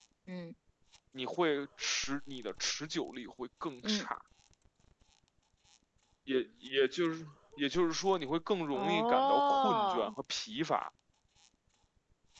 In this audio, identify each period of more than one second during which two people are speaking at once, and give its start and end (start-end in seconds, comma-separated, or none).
8.7-10.1